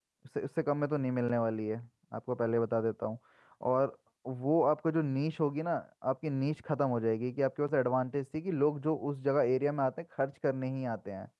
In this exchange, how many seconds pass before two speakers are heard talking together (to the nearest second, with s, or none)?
none